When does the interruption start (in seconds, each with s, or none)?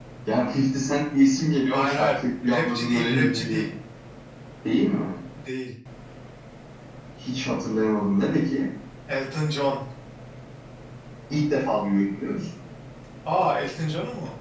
1.7 s